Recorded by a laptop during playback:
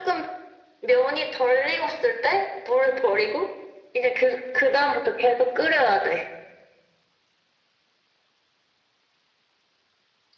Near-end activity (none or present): none